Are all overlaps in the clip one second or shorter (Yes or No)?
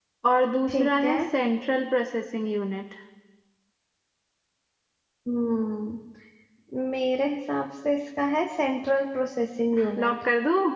Yes